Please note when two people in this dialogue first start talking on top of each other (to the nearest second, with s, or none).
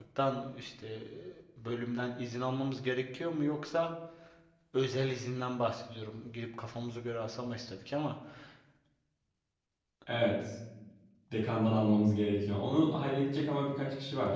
none